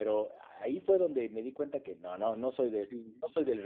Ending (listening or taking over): taking over